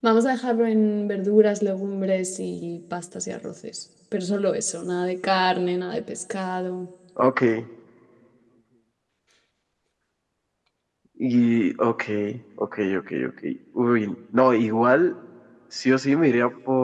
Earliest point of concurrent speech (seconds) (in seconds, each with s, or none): none